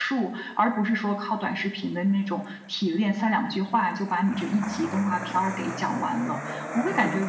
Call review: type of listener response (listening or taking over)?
listening